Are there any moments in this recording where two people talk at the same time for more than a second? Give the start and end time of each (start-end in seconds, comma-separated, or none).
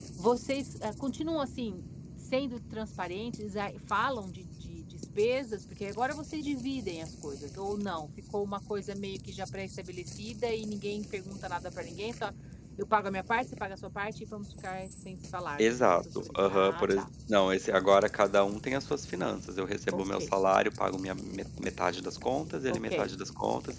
15.6-17.1